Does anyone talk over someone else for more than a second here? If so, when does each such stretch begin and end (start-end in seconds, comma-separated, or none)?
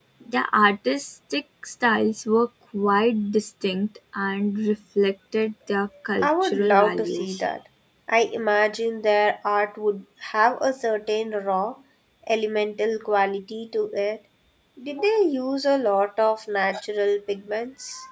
6.2-7.4